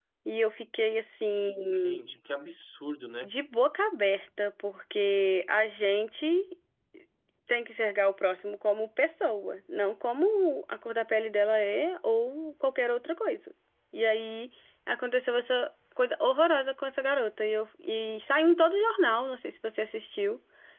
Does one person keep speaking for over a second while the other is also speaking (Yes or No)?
No